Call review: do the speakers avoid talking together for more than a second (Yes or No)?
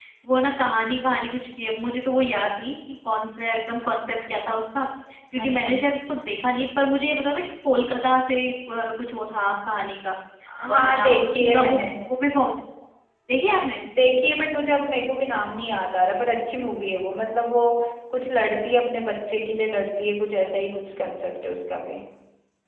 No